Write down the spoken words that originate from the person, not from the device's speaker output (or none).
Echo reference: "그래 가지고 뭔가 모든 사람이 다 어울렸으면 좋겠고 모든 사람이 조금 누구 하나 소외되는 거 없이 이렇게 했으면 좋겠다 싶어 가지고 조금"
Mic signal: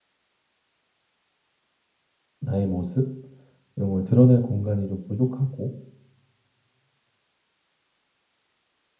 나의 모습 이런 걸 드러낼 공간이 좀 부족하고